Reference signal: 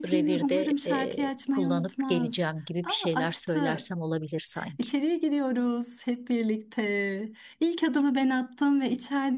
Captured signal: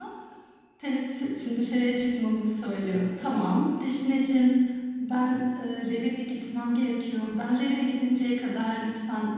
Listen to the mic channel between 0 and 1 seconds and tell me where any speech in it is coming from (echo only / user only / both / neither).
user only